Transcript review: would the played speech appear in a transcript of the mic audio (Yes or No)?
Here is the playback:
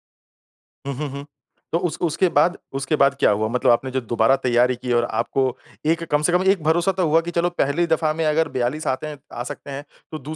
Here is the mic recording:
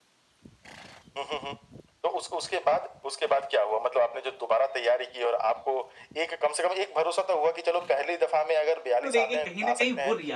Yes